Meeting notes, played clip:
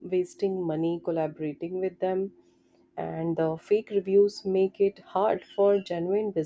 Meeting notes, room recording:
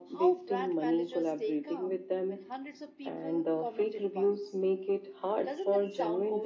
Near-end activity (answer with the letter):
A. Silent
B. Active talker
B